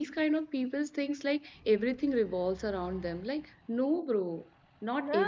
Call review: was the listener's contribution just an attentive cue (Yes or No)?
Yes